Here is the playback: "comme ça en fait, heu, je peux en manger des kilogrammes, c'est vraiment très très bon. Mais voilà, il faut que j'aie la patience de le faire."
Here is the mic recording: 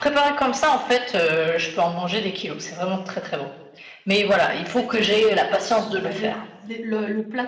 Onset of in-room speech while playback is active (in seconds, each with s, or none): 4.5 s